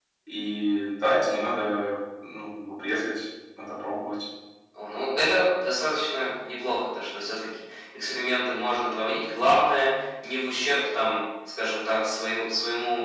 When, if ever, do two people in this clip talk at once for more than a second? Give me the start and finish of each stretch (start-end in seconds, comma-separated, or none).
none